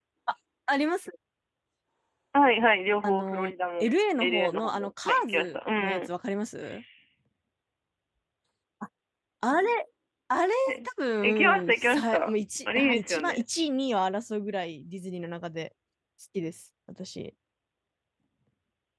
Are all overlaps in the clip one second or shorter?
No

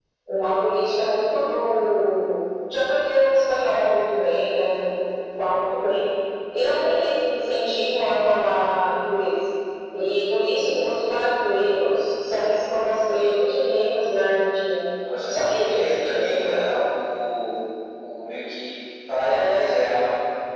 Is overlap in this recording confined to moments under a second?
No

